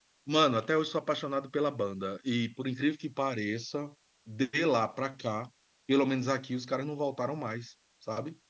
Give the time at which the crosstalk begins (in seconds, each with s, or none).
none